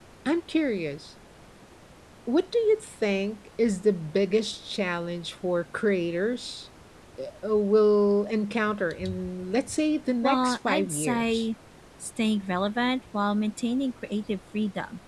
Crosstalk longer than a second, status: present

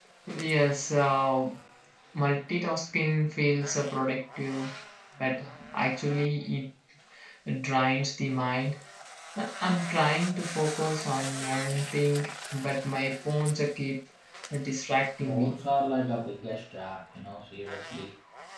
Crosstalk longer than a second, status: none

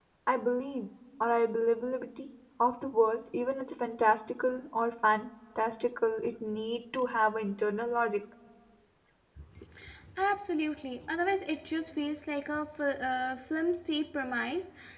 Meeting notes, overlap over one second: none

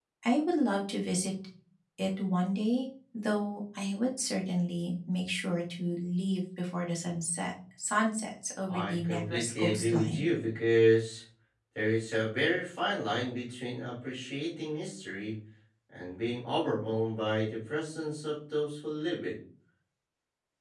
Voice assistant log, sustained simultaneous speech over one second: present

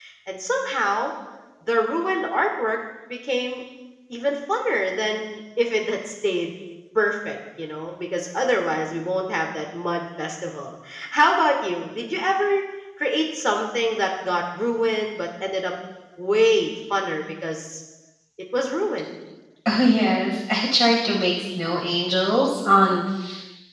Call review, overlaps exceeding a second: none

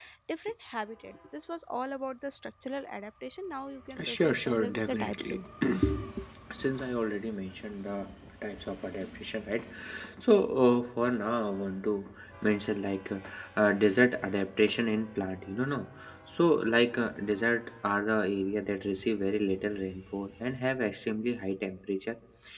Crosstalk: present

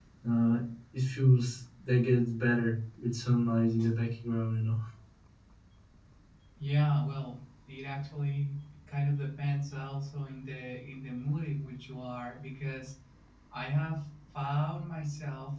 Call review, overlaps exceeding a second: none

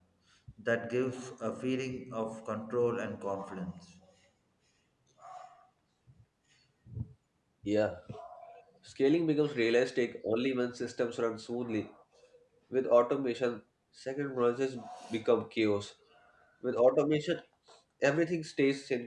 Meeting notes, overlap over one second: none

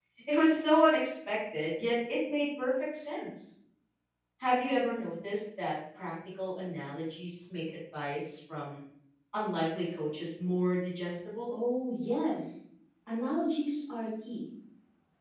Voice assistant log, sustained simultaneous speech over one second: none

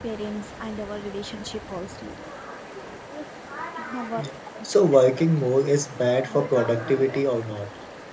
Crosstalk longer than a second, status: none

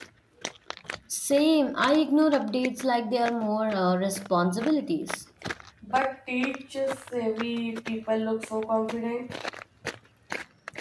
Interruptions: none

